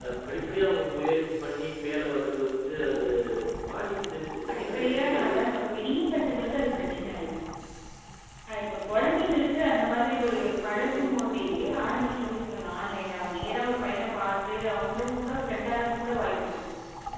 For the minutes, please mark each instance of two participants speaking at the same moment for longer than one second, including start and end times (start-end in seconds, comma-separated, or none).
4.5-5.8